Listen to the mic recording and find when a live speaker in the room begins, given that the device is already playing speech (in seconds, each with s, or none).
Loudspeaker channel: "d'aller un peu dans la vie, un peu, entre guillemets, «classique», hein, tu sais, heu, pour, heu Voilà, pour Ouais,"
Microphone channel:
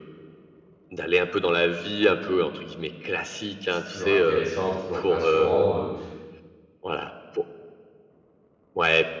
3.7 s